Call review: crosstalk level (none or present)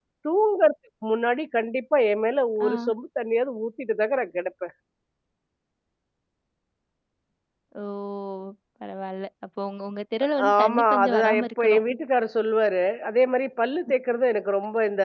present